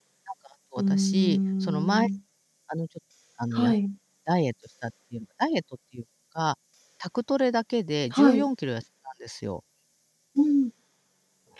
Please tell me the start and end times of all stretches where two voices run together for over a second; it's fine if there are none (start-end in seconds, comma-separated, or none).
0.8-2.1